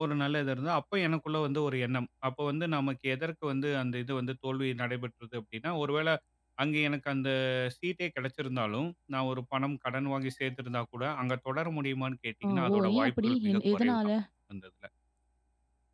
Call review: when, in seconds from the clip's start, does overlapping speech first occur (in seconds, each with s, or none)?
12.4 s